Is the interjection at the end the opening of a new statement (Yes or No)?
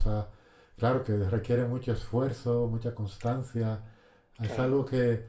No